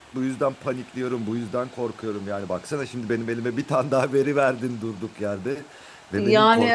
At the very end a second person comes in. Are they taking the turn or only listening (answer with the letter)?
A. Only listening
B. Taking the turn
A